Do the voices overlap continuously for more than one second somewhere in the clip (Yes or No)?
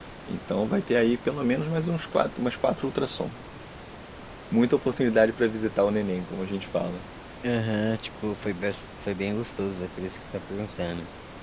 No